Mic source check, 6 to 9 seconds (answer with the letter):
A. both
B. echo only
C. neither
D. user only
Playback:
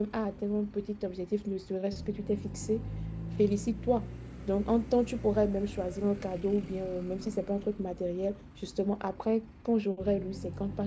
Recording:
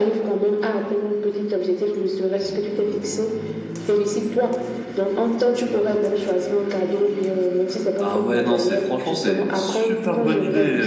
A